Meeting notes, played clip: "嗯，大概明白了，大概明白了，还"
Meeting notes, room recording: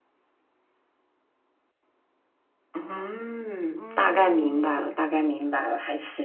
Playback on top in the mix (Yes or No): Yes